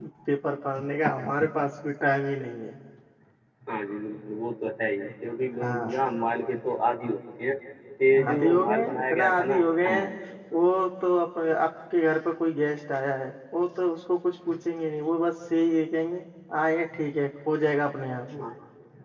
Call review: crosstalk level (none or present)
present